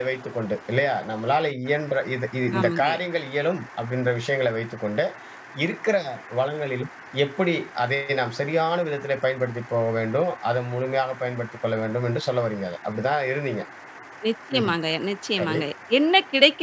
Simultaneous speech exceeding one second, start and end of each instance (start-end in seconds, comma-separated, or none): none